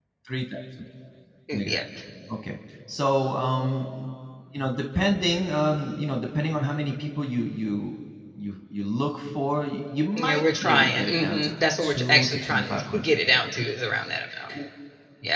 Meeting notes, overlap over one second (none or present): present